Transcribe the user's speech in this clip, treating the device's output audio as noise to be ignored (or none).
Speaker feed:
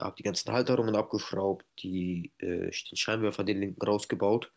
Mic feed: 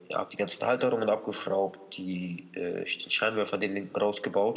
none